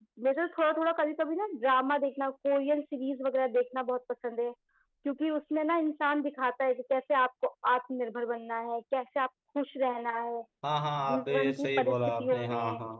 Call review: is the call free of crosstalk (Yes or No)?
No